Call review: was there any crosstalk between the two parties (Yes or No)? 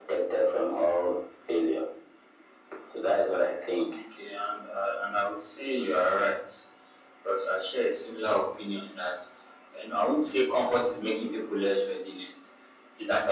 No